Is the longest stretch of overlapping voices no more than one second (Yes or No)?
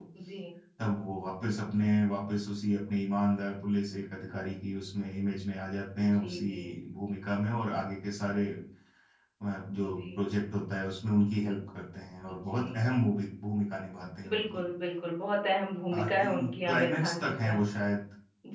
No